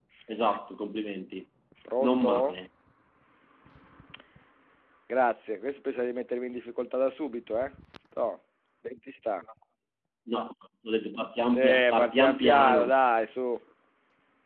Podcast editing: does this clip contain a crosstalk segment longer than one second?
Yes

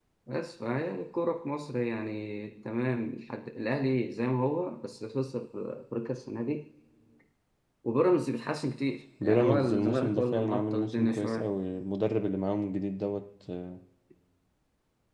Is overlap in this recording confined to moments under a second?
No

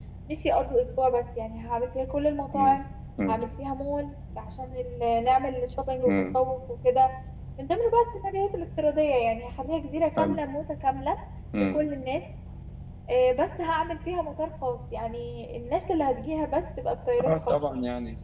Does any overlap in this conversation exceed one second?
No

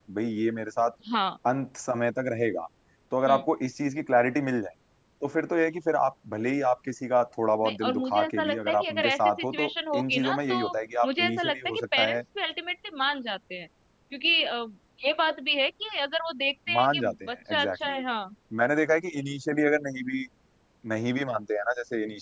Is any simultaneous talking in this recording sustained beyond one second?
Yes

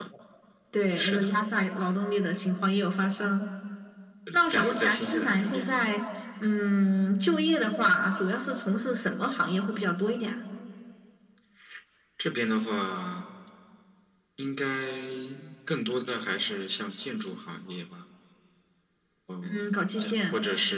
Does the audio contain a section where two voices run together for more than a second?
Yes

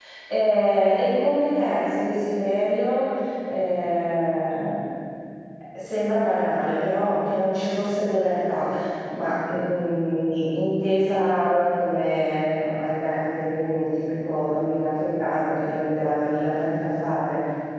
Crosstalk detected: No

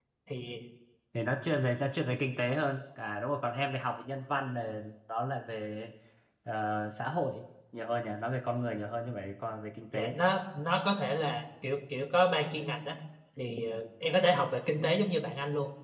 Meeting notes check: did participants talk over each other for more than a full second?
No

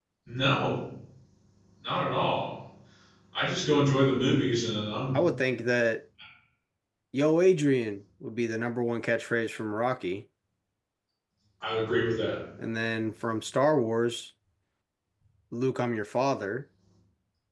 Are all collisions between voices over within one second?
Yes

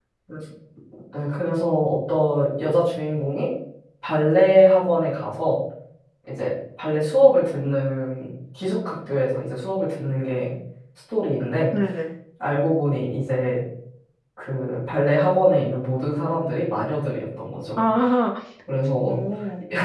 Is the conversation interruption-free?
Yes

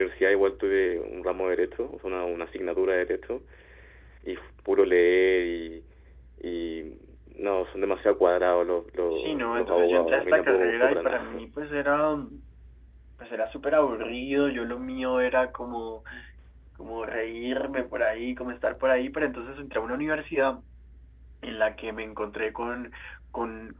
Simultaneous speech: Yes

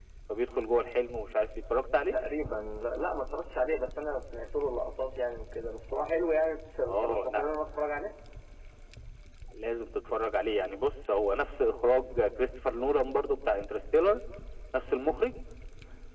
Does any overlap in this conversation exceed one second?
No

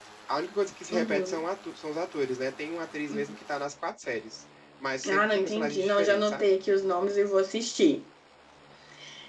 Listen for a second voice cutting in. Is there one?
Yes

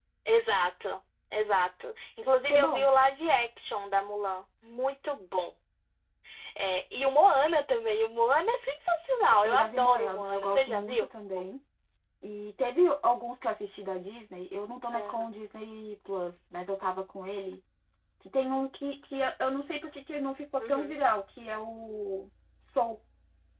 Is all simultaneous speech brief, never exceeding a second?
No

